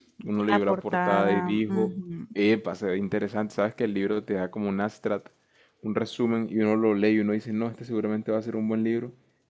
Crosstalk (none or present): present